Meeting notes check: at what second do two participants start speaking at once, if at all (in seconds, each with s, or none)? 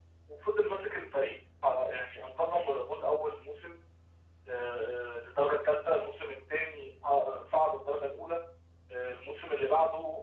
none